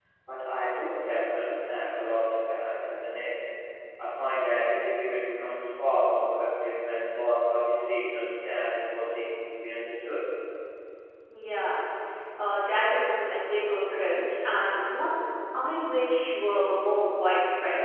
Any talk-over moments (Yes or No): No